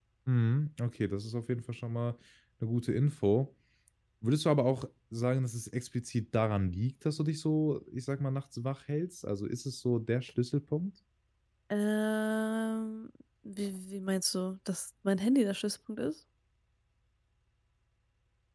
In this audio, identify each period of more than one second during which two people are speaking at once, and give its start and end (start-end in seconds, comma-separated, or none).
none